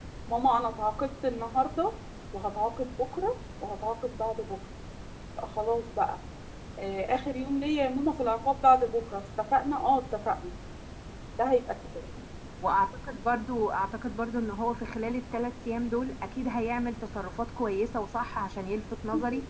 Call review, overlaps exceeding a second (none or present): none